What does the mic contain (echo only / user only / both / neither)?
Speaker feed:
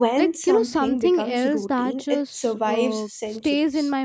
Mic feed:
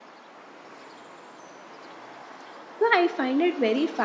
user only